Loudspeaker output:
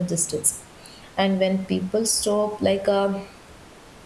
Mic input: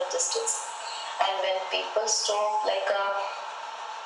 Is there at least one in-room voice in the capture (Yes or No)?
No